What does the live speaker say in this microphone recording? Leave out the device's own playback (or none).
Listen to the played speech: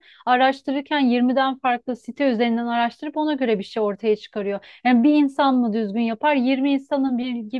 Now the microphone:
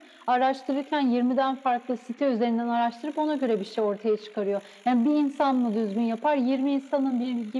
none